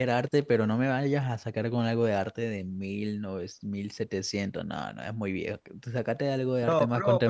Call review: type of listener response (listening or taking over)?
taking over